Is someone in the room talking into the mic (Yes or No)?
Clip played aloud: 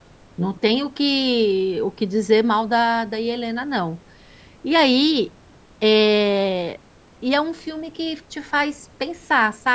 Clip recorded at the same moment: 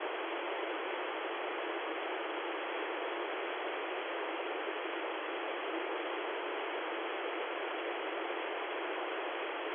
No